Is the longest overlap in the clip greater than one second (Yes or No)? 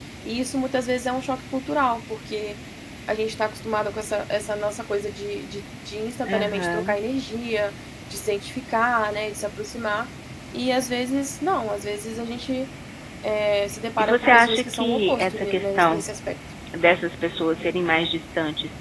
Yes